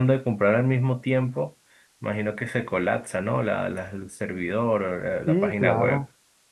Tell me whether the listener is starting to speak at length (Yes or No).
Yes